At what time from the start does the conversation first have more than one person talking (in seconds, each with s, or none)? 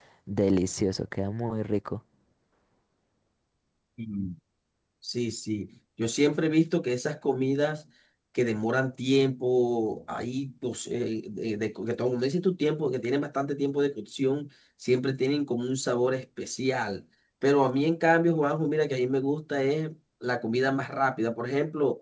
none